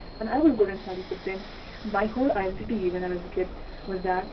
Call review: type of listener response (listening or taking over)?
listening